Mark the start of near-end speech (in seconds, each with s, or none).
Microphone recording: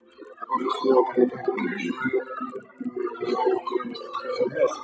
1.6 s